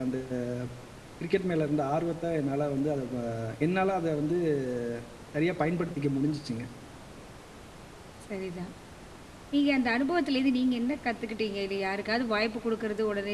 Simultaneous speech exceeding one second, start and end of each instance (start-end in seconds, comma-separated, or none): none